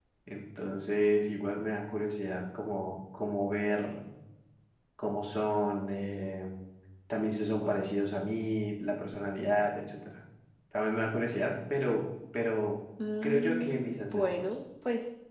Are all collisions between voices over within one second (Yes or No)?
No